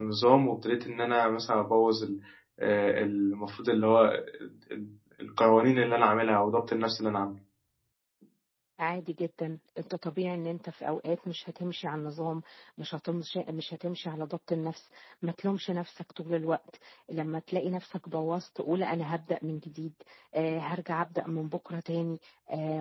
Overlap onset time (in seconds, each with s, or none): none